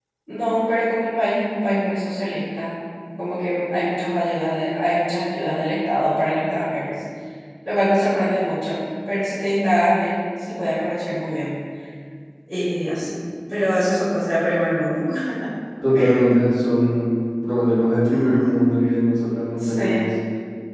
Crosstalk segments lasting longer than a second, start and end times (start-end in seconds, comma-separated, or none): none